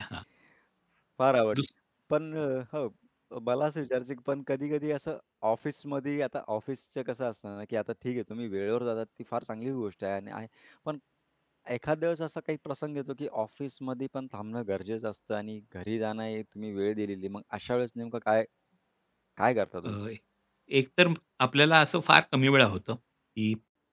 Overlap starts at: none

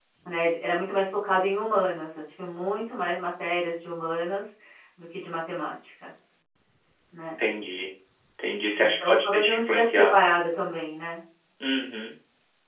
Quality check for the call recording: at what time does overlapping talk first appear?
8.8 s

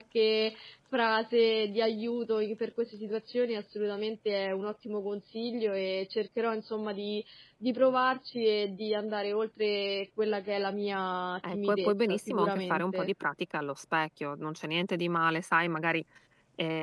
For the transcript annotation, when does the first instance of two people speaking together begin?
11.4 s

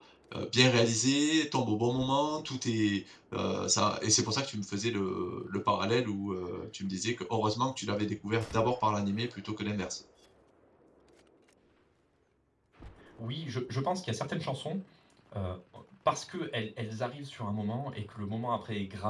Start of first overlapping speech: none

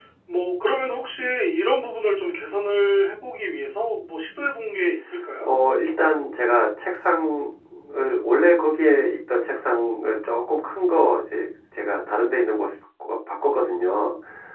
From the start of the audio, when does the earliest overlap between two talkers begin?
none

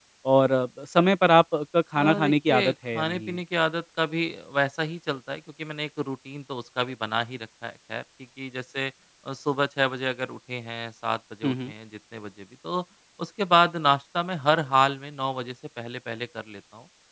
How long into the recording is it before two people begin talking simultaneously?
2.0 s

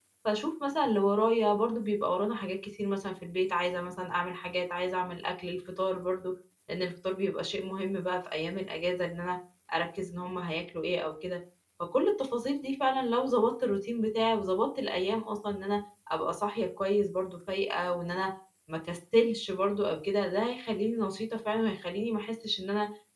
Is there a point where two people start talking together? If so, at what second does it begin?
none

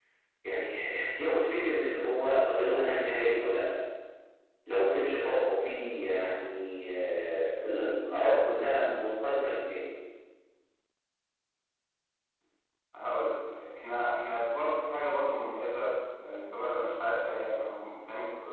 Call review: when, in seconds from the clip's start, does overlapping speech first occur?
none

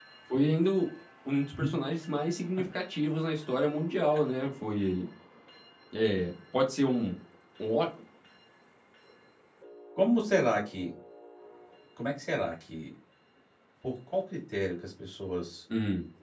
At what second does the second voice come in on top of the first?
none

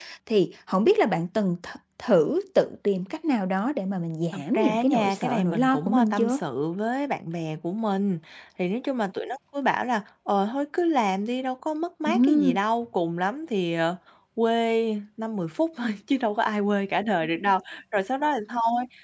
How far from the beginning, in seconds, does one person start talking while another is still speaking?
4.3 s

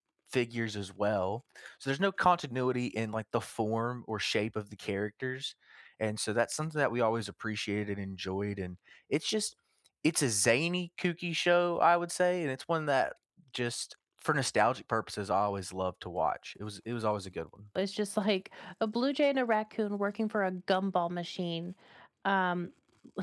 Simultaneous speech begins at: none

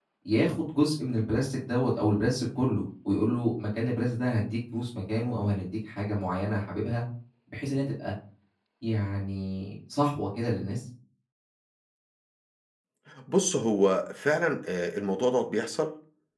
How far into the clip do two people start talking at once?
none

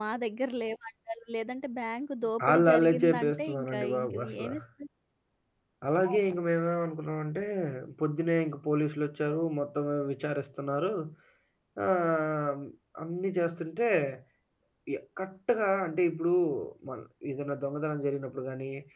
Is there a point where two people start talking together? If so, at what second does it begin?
2.4 s

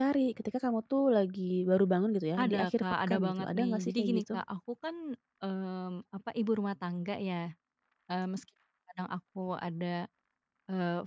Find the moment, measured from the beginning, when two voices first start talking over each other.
2.4 s

